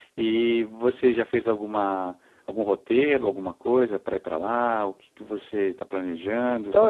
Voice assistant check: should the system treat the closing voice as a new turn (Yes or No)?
Yes